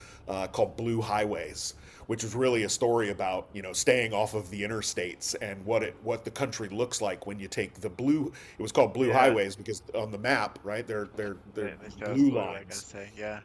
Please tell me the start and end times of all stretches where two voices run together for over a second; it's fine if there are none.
11.6-12.8

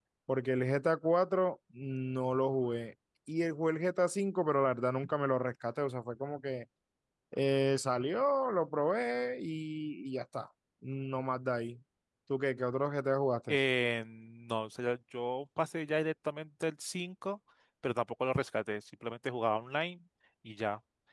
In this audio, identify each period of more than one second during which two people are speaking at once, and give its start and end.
none

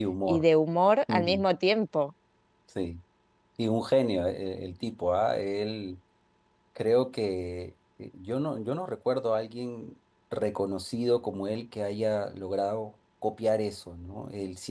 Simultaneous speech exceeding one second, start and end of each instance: none

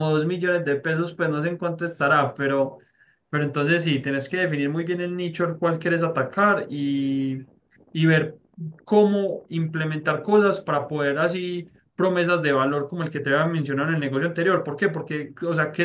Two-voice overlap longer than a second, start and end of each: none

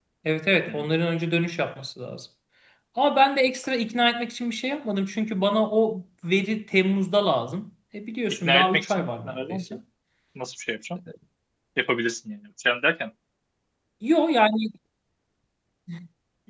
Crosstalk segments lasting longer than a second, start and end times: 8.4-9.6

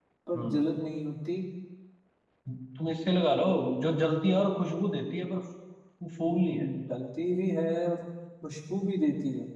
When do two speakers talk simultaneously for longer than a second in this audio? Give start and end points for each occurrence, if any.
none

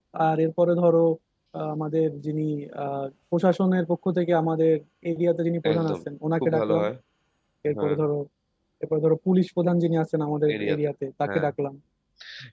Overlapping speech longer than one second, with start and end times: none

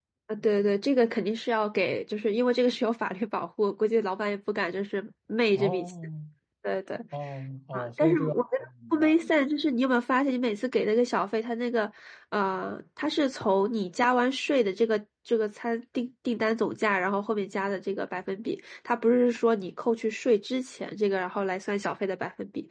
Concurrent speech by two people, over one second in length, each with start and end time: 7.7-9.2

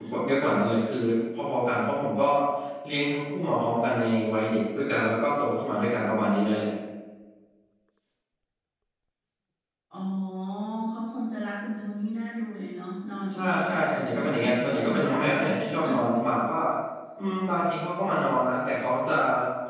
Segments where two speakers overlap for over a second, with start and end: 13.4-15.5

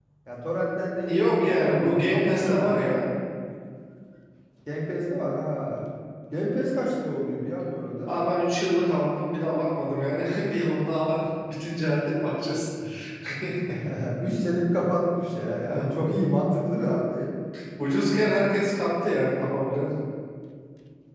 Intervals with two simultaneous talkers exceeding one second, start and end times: 1.1-2.6

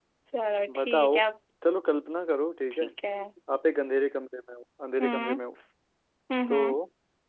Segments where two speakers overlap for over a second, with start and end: none

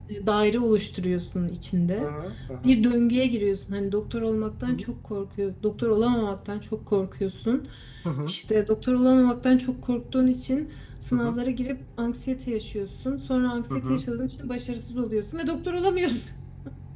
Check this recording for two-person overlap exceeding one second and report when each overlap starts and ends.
none

